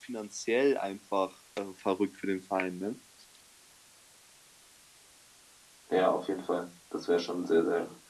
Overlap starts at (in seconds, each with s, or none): none